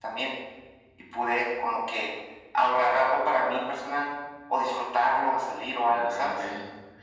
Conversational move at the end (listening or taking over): taking over